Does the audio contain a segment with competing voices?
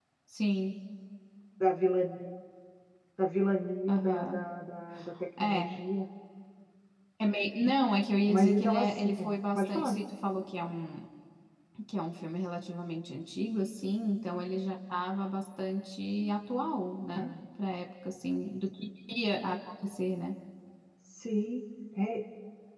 Yes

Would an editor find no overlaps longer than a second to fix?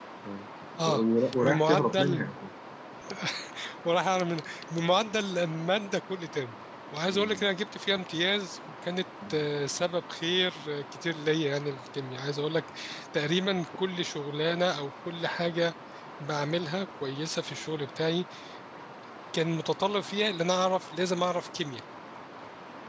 No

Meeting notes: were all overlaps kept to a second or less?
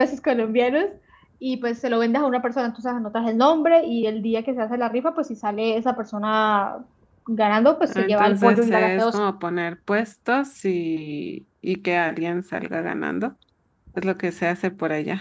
No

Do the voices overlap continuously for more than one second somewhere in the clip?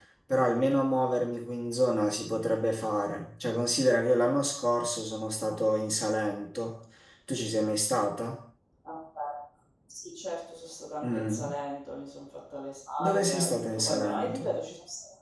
Yes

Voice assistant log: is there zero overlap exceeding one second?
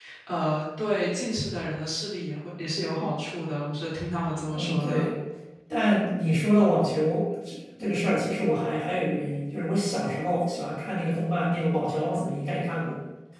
Yes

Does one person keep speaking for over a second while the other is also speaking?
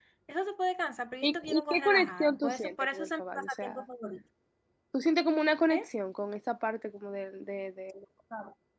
Yes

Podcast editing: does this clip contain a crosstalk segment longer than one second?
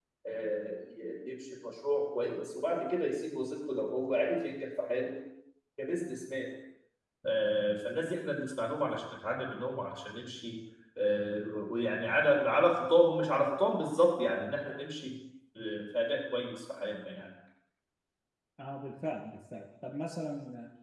No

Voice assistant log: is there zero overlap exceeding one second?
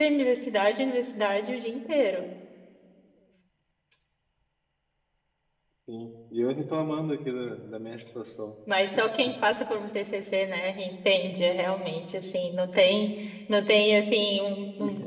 Yes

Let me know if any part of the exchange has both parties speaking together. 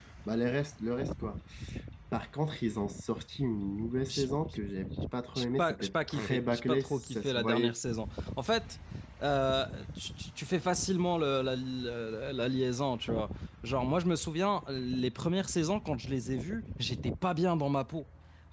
Yes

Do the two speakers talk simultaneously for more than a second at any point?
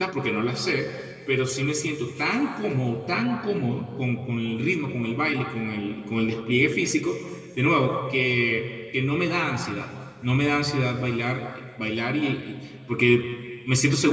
No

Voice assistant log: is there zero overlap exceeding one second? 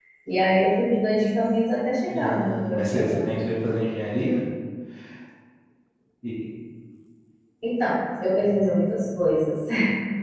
No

